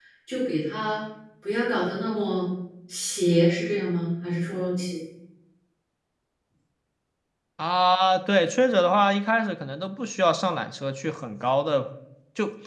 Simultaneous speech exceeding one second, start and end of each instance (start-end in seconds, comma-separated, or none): none